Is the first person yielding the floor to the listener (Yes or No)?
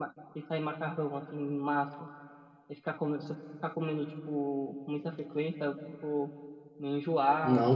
Yes